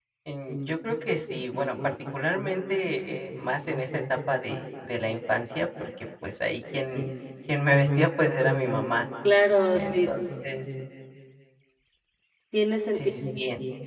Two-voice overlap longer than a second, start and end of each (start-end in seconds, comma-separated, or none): none